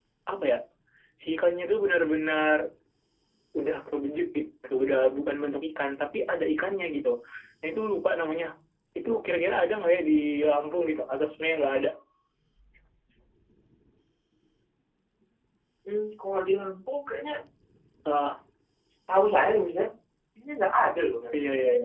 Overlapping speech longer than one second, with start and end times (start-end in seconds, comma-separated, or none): none